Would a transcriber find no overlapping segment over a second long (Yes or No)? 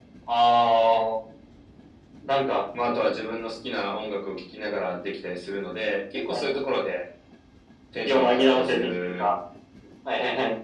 No